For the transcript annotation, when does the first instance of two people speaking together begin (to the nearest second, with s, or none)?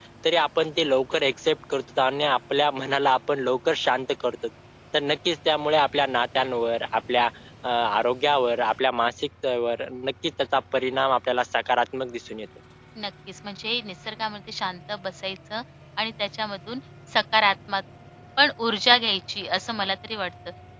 none